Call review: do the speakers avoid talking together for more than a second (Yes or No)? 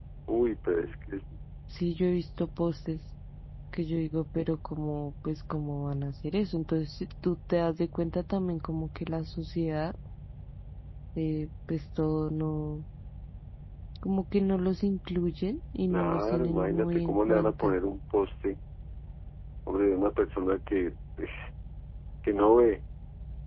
No